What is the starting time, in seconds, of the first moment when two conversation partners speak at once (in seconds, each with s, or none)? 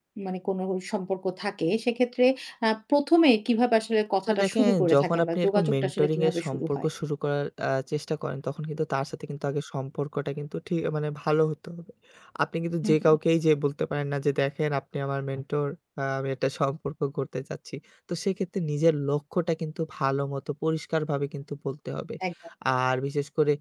4.3 s